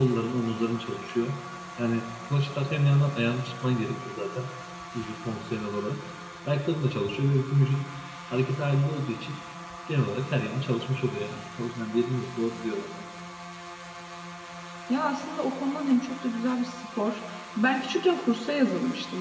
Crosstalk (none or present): none